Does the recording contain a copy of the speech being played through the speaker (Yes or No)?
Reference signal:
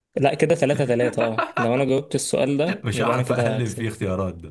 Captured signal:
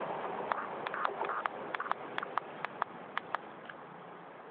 No